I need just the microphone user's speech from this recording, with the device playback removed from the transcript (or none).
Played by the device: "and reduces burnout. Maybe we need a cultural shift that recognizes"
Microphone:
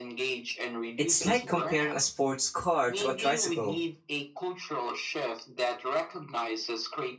it's like comparing a sports car to a tricycle.